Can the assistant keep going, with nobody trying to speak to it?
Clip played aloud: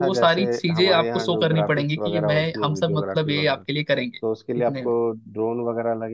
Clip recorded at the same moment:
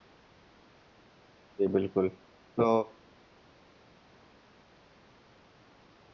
No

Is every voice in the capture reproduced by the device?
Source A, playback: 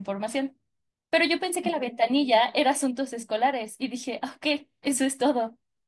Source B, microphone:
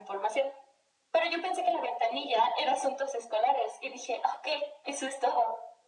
Yes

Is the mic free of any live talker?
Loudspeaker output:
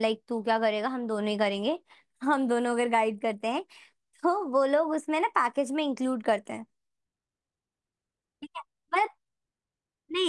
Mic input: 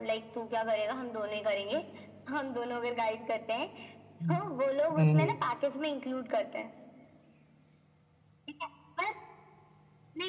No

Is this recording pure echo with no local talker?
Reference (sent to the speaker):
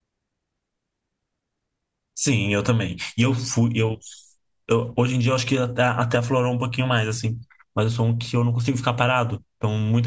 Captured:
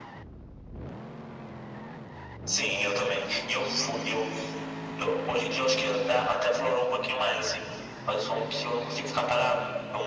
Yes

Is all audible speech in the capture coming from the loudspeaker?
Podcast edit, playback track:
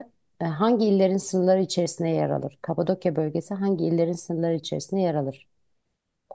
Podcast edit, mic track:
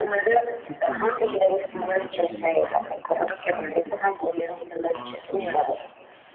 No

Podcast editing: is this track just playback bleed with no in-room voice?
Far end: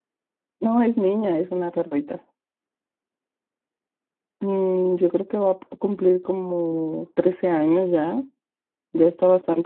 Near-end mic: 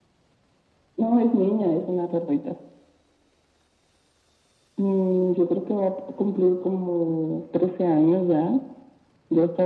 Yes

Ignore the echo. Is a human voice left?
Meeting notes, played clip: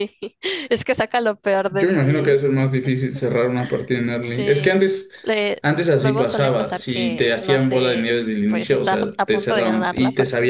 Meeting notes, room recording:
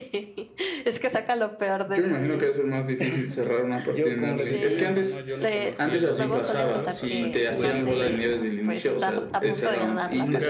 Yes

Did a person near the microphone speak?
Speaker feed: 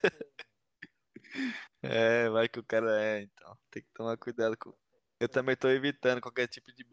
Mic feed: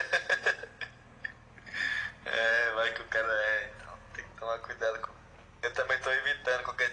No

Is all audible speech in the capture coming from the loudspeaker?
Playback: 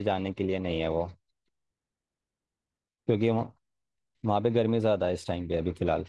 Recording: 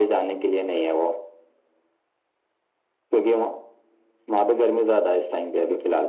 Yes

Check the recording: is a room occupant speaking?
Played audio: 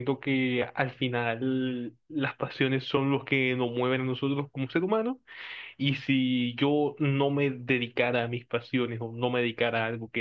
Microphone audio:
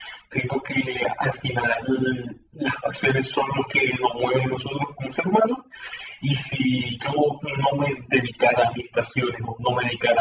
No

